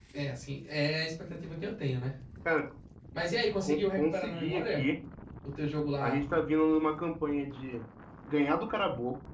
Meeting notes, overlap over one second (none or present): present